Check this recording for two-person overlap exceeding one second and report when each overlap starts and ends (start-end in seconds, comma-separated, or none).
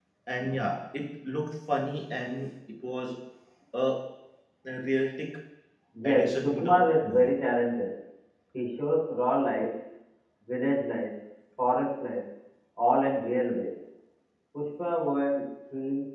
6.0-7.3